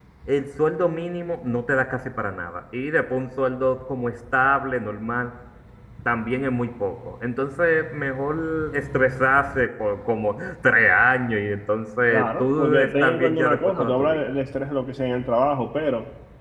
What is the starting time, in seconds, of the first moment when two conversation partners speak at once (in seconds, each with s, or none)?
12.1 s